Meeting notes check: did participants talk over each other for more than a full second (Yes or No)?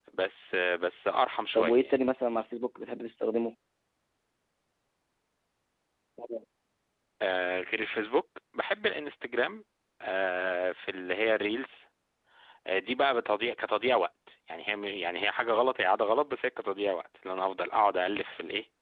No